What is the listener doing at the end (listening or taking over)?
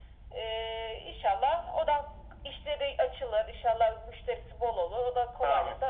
taking over